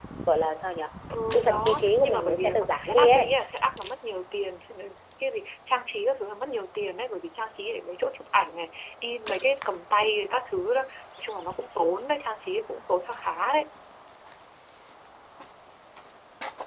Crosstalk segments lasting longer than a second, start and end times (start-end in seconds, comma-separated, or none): 1.3-3.3